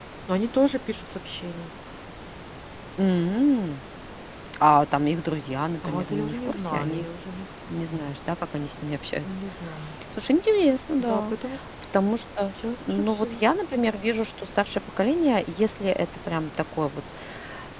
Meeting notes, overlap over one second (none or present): present